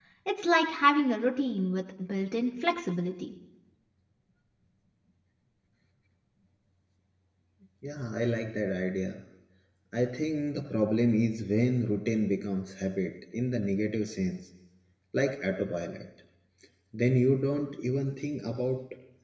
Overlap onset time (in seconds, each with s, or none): none